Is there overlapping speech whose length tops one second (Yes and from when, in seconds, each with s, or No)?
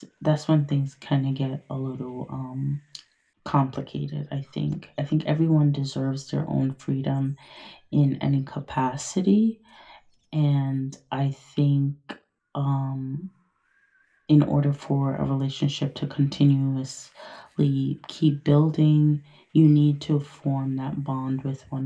No